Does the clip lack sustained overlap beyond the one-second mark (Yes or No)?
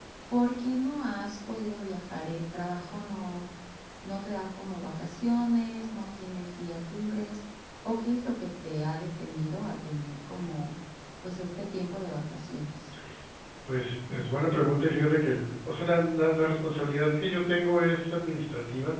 Yes